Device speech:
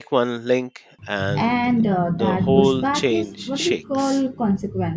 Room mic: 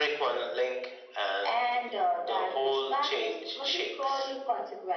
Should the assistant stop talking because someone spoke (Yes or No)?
No